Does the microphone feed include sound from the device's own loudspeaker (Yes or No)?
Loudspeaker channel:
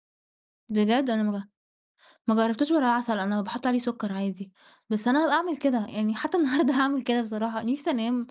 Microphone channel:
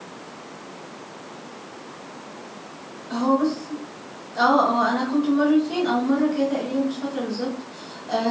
No